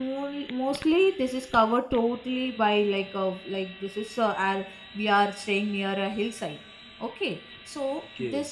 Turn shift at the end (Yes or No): No